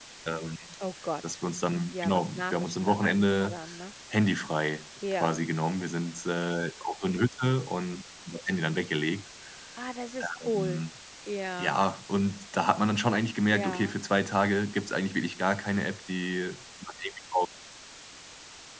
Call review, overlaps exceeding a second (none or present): present